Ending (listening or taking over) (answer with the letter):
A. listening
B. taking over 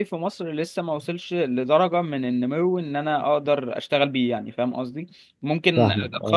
A